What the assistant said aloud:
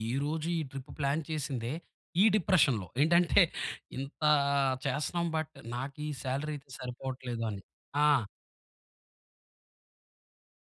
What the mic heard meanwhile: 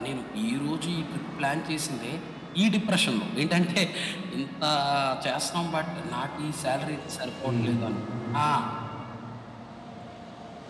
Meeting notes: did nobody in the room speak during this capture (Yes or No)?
No